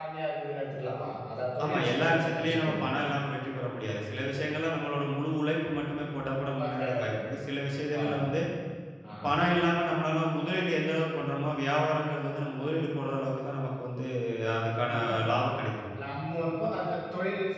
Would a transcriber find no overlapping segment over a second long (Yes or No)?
No